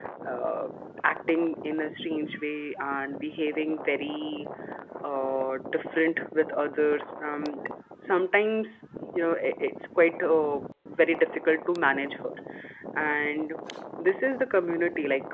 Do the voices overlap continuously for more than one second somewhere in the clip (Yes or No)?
No